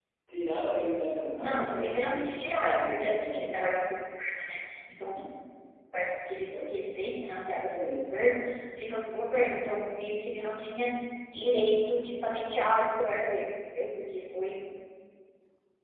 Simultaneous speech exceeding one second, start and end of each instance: 1.4-3.5

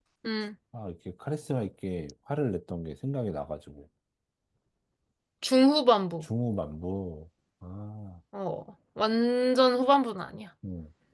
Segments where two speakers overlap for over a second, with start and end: none

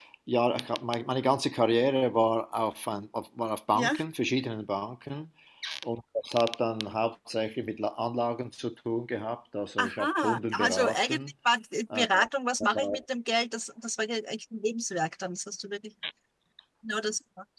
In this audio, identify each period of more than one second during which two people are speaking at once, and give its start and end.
9.8-11.3

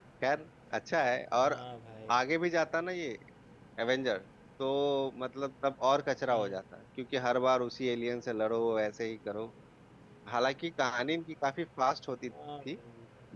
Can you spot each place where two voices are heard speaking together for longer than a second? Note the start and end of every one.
none

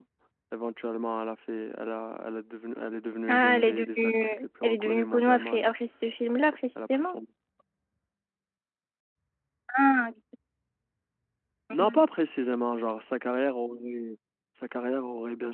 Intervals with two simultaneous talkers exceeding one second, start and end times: 3.3-5.7

